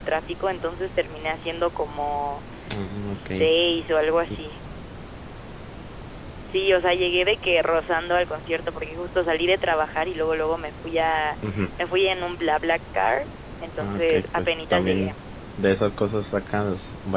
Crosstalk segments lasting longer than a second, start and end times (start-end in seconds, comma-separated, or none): 13.8-15.2